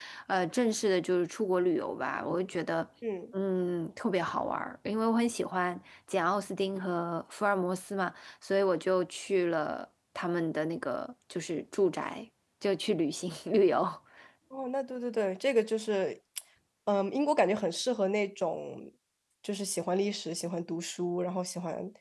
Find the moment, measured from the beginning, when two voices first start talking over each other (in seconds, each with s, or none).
none